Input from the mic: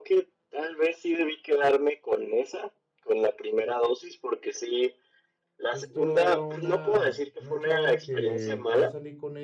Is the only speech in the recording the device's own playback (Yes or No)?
No